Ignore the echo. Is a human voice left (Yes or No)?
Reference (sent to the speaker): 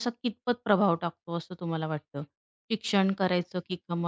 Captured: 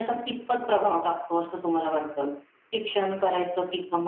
No